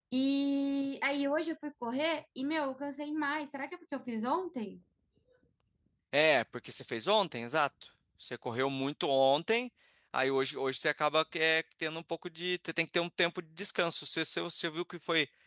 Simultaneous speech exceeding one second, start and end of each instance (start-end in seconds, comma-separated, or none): none